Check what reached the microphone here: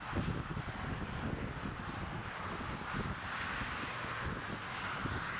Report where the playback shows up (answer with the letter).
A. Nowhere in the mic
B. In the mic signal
A